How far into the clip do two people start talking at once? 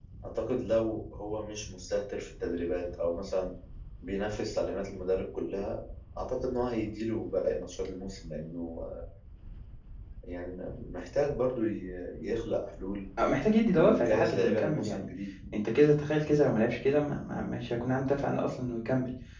13.8 s

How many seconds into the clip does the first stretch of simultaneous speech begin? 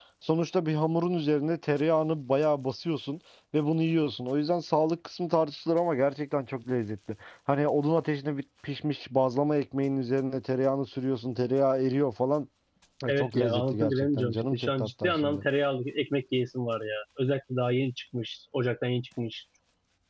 13.1 s

